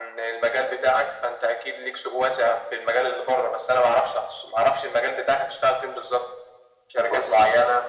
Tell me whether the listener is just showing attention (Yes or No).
Yes